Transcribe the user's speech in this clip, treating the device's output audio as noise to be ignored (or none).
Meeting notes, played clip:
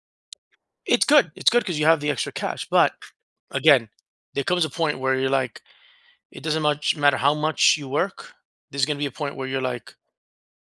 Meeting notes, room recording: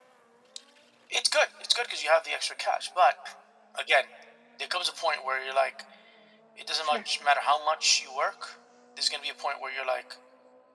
Sure.